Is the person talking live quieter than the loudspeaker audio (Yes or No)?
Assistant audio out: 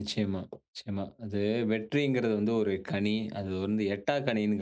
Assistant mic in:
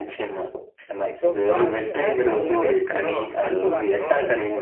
Yes